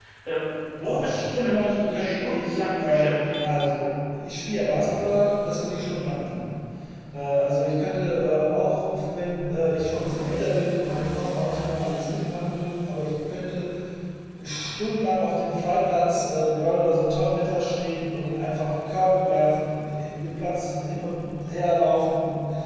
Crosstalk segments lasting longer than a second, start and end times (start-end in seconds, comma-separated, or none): 0.8-3.4